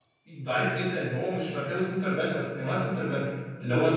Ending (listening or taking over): taking over